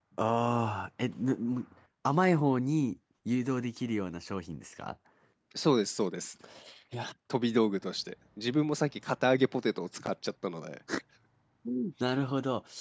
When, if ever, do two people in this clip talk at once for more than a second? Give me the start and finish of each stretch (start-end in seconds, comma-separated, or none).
none